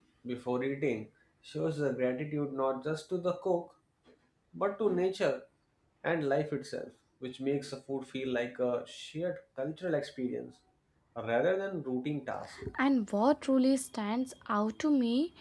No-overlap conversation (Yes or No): Yes